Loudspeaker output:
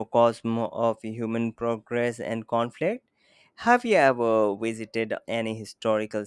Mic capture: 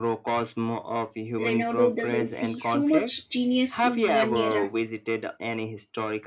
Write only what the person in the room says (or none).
Leonardo da Vinci, so much genius in one era.